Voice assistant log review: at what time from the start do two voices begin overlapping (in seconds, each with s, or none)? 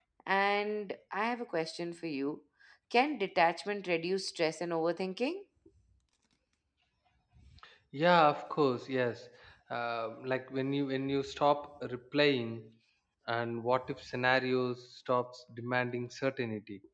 none